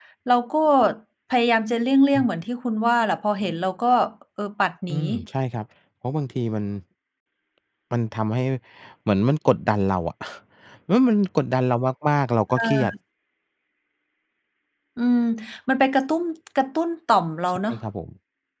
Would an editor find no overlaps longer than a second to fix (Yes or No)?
Yes